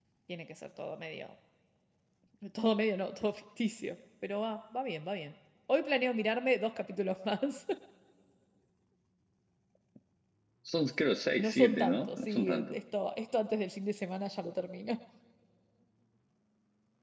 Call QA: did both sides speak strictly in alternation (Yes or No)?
No